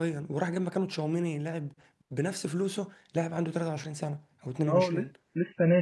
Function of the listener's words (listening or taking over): taking over